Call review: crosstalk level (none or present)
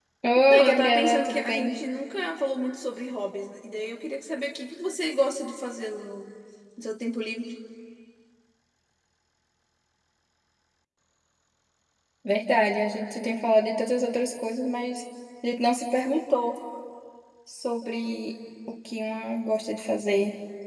present